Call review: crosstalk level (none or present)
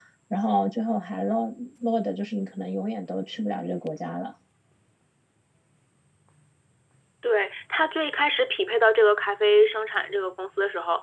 none